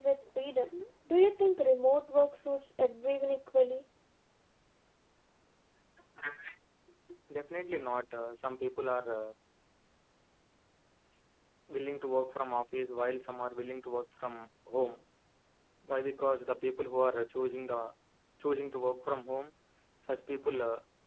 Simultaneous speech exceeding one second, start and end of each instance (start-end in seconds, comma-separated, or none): none